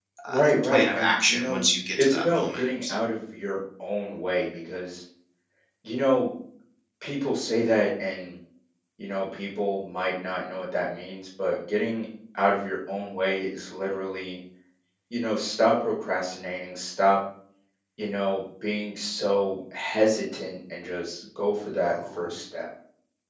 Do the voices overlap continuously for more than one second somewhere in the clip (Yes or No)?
Yes